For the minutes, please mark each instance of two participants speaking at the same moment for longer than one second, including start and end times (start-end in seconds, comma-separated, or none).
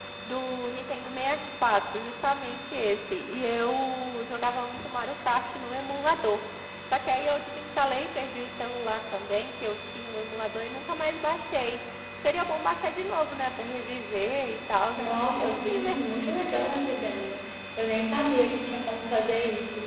14.9-16.5